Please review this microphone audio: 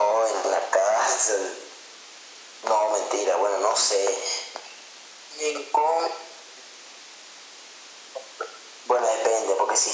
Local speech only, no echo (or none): none